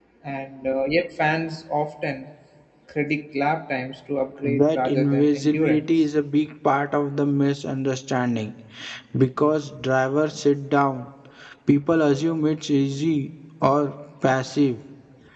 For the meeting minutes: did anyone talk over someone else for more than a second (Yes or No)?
Yes